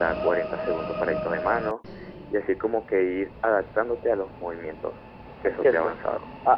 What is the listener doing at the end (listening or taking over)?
taking over